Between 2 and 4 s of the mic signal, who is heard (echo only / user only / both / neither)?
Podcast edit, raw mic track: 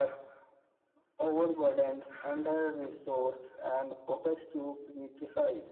echo only